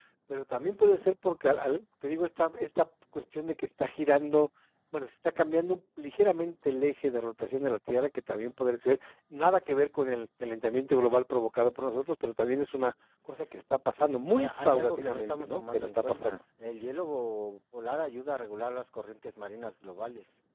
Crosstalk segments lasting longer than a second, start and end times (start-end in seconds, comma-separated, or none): 14.3-16.4